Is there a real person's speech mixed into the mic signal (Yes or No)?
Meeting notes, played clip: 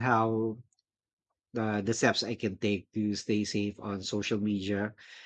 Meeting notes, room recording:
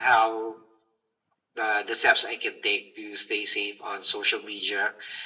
No